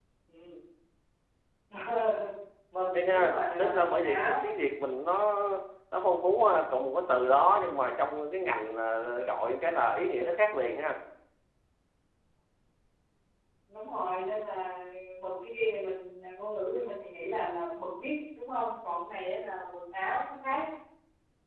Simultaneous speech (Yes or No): Yes